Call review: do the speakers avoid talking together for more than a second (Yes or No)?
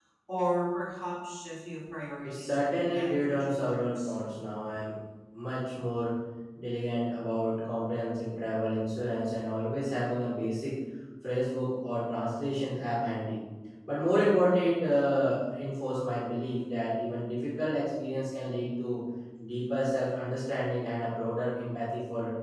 No